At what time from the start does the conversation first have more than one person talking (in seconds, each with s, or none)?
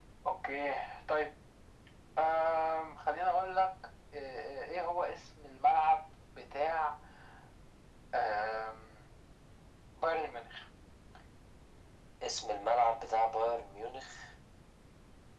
none